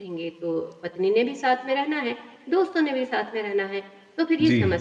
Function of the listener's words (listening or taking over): listening